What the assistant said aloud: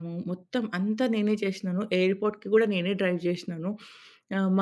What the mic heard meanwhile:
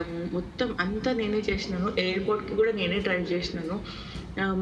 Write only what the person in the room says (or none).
none